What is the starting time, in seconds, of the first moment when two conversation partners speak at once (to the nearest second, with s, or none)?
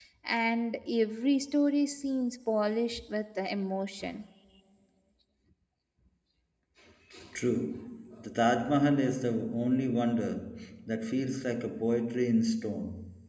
none